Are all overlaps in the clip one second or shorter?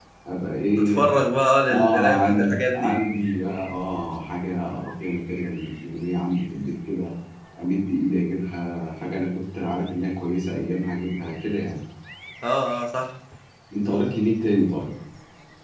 No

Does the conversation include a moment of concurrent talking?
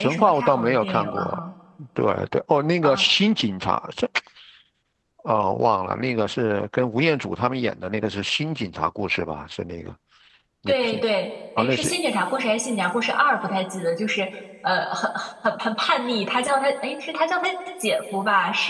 Yes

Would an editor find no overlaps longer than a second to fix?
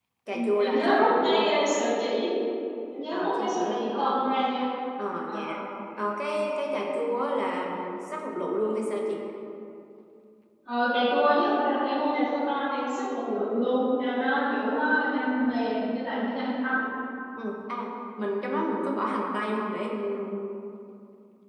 No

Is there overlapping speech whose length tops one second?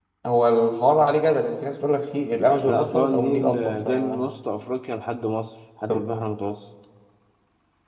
Yes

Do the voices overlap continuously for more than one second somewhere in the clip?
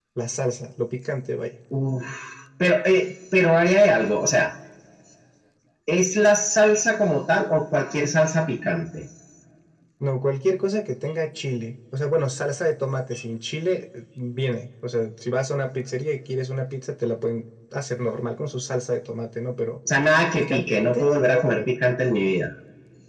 Yes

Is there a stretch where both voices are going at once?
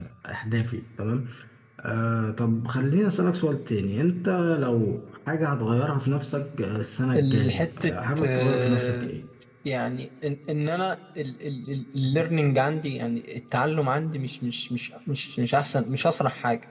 Yes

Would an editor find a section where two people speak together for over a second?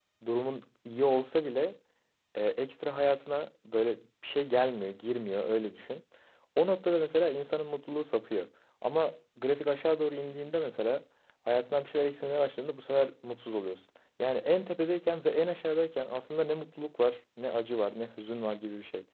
No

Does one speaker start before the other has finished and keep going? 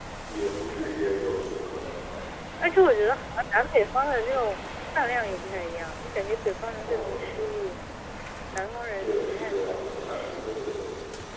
Yes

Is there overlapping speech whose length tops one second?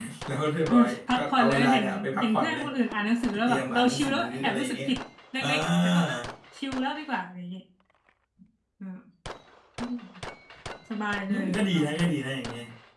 Yes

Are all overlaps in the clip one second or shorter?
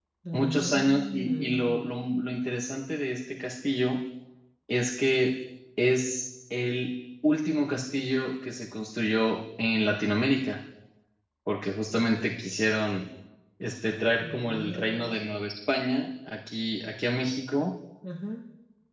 No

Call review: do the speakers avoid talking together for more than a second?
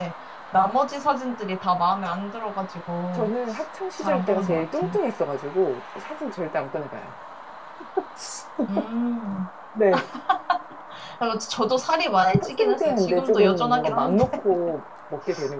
No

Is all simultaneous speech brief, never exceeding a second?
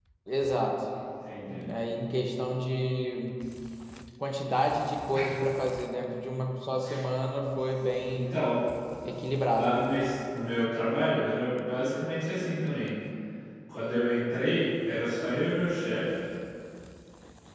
Yes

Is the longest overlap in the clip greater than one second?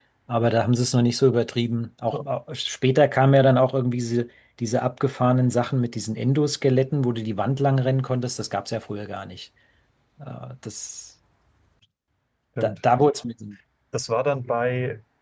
No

